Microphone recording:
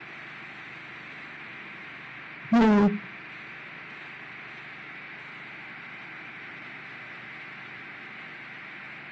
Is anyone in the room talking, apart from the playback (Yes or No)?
Yes